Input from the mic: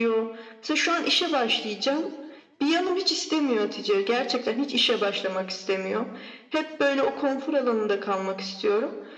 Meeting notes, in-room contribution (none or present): none